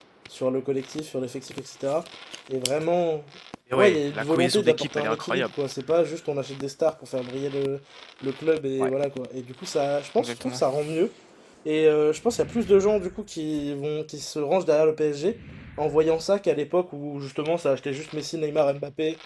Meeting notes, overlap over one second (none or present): present